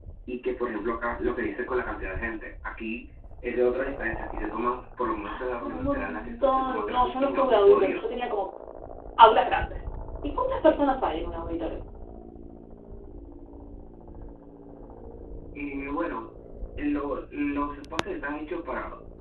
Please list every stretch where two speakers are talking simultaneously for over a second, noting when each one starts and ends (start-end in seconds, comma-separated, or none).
5.3-8.0